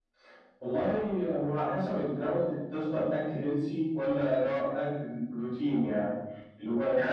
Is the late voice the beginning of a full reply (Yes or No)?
Yes